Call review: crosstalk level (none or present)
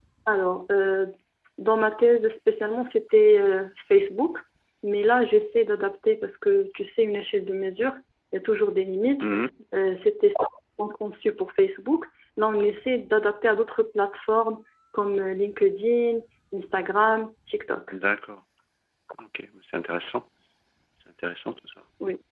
none